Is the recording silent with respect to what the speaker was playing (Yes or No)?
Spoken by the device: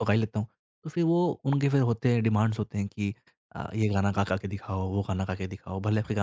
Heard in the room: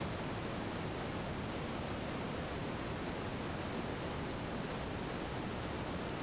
Yes